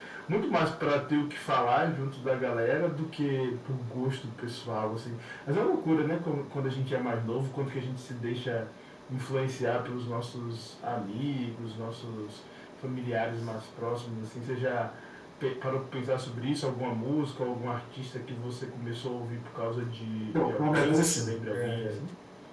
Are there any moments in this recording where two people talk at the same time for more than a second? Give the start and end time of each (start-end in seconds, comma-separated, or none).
20.3-21.9